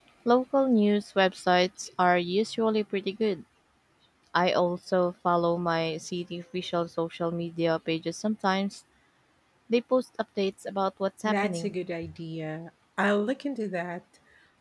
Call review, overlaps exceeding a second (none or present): none